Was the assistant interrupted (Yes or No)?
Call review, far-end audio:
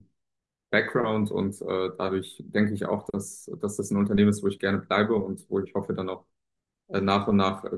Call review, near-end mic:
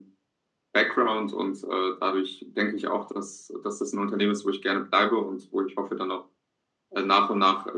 No